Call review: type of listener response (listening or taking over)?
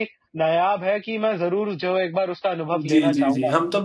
taking over